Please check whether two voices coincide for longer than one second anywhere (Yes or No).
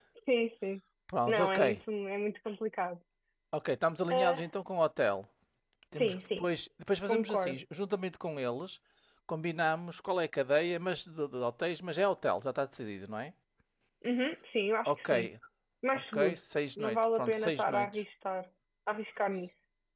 Yes